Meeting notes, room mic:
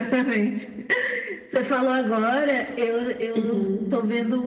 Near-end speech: present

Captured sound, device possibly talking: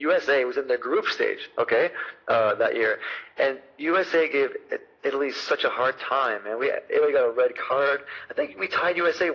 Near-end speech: none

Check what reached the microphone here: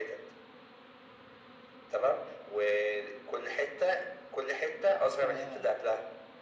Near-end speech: present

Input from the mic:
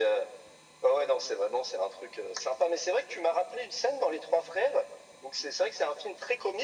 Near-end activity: none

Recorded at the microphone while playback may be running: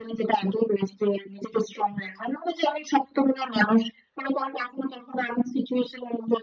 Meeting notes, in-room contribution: none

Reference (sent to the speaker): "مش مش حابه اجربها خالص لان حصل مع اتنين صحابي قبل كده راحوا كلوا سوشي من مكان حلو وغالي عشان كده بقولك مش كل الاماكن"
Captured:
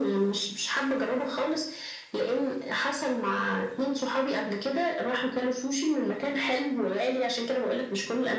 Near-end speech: none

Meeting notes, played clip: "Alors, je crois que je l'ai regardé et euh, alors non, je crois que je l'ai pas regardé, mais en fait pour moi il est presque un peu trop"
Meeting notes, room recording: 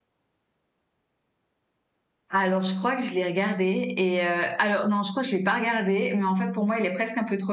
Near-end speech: none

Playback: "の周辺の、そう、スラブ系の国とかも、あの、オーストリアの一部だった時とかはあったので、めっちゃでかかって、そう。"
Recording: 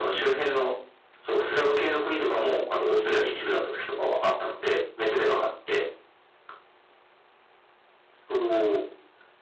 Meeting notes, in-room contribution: none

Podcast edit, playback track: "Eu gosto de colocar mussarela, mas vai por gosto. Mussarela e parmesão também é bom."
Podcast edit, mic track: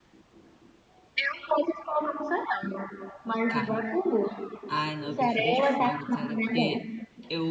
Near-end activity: present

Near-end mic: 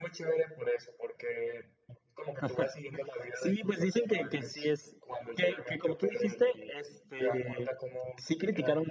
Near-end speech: none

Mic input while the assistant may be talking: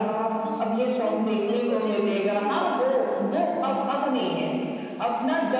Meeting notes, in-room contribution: present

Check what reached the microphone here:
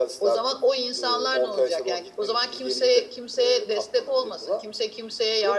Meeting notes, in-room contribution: none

